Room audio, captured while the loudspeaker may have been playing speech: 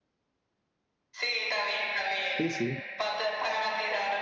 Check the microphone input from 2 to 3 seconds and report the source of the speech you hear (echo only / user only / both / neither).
both